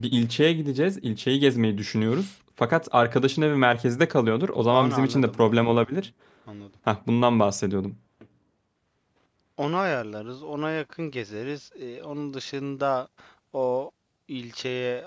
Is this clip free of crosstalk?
No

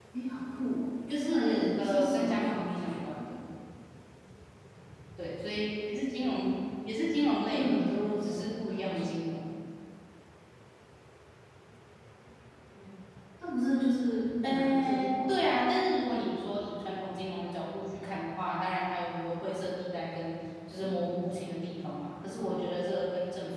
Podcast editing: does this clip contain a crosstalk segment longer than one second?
Yes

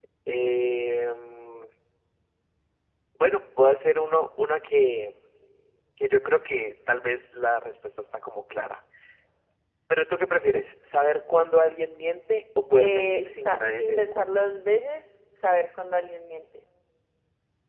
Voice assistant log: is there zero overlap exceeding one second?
No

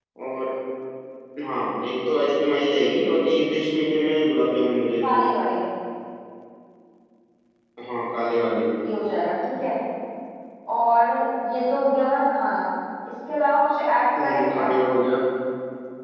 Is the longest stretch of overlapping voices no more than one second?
Yes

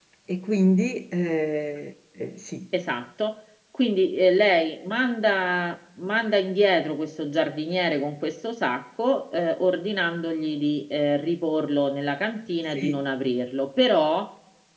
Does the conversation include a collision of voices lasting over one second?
No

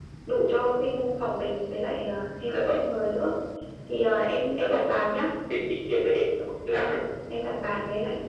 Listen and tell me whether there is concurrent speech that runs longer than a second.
No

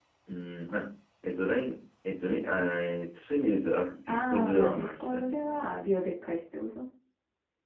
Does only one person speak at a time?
No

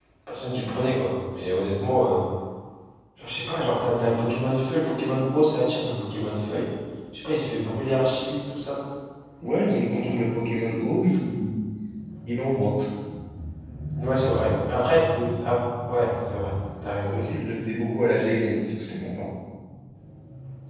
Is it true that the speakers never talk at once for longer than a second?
Yes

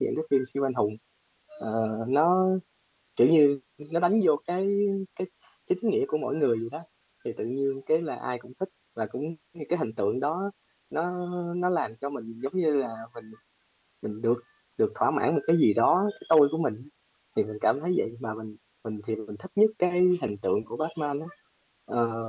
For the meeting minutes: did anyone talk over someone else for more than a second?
No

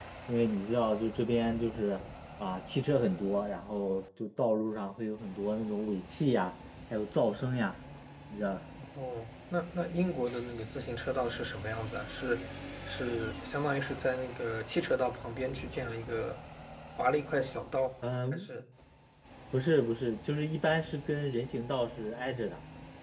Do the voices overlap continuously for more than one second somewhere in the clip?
No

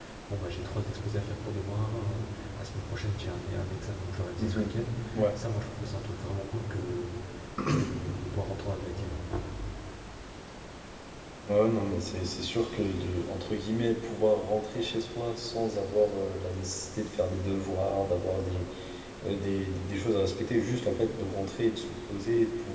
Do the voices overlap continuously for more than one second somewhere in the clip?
No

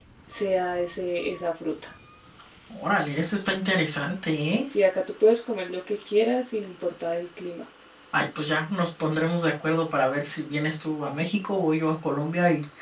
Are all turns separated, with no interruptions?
Yes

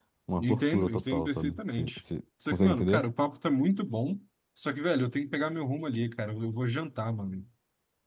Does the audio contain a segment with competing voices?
Yes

